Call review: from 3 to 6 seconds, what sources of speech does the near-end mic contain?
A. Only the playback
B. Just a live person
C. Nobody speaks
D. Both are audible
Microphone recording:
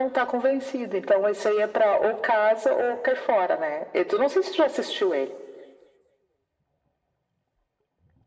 A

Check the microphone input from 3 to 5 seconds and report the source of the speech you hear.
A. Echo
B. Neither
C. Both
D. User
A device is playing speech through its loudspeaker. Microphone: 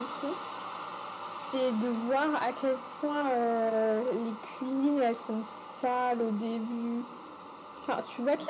A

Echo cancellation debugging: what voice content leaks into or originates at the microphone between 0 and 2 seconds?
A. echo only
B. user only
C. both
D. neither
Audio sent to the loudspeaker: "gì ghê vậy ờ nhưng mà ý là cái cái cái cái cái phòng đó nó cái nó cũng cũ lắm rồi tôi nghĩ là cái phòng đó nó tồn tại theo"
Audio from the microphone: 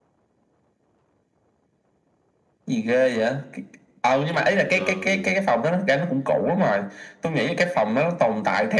D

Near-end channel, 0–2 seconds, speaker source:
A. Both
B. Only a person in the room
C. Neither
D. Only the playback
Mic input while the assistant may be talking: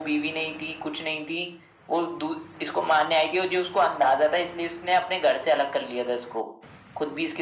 D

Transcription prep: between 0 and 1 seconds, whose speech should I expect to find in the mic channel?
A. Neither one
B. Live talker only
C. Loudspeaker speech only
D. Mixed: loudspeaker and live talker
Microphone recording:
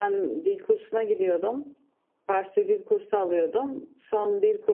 C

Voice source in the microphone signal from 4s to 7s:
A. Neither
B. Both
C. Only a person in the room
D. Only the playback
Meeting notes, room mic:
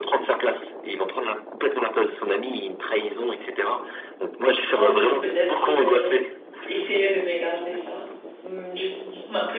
B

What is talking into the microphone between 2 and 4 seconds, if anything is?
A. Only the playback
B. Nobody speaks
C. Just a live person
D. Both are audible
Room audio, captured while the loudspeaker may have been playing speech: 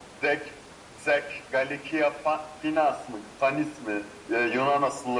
A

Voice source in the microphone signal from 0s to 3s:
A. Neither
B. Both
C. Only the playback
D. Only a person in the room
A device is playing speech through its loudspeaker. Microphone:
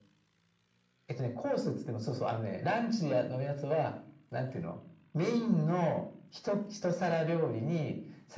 C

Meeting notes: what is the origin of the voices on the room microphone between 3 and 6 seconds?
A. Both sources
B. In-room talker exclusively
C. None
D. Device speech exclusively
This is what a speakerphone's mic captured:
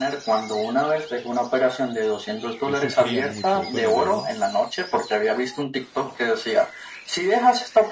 A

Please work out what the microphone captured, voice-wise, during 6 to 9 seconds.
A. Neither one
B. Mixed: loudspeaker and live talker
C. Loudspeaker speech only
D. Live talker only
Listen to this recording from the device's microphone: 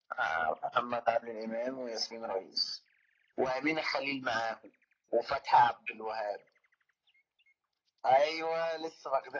C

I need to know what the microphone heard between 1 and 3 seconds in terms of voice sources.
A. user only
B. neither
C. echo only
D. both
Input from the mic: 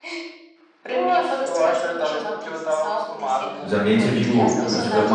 C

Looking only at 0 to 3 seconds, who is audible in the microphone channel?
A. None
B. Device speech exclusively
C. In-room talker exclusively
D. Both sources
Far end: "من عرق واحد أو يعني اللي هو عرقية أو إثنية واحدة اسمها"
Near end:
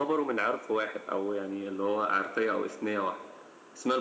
B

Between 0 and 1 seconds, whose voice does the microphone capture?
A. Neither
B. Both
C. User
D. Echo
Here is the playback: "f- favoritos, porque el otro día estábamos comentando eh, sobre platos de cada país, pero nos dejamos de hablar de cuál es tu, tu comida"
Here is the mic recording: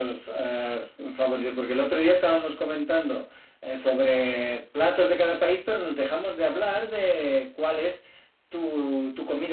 D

